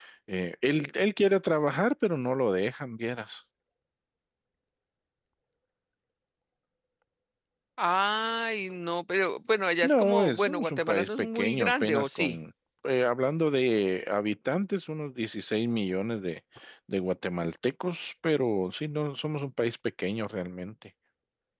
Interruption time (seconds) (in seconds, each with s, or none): 9.8 s